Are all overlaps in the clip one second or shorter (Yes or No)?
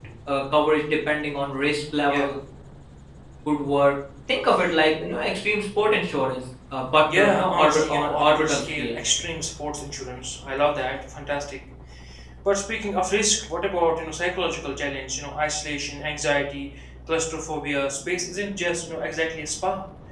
No